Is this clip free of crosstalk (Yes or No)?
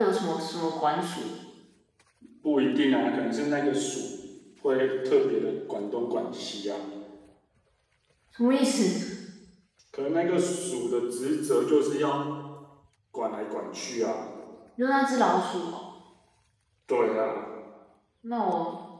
Yes